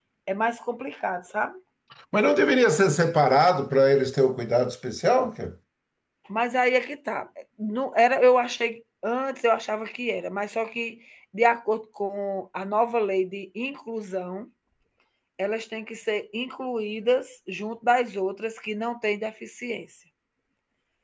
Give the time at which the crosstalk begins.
none

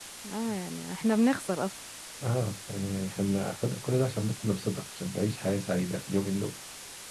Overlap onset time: none

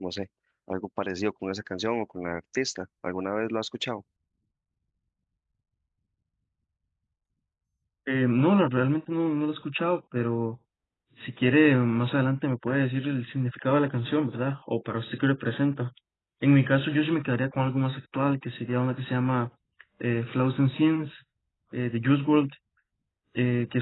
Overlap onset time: none

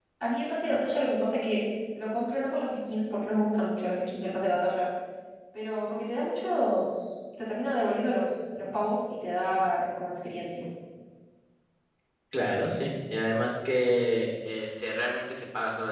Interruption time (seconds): none

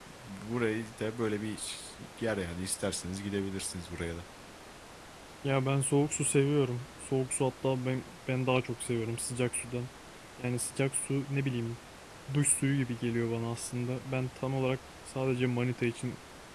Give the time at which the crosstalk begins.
none

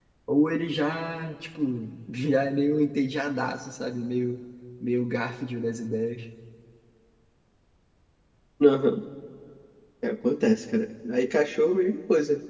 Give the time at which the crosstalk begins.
none

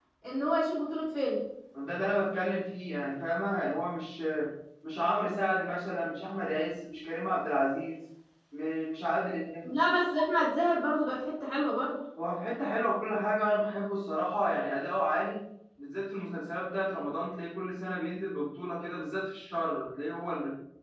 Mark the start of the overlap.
none

